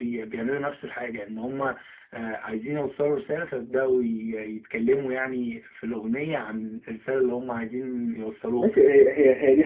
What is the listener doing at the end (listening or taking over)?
taking over